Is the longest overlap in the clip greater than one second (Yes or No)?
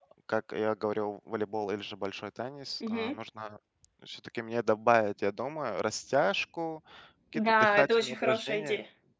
Yes